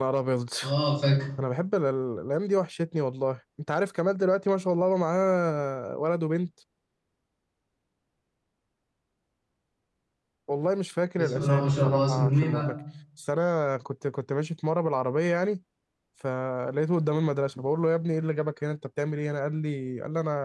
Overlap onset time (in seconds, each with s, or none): 11.2 s